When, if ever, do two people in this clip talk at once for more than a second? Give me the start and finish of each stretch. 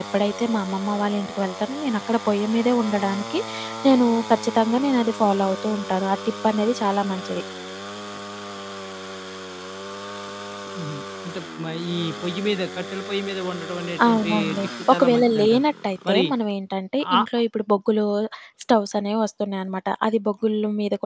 14.0-15.6

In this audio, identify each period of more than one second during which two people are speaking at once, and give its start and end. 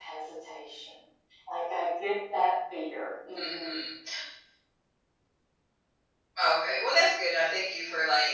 none

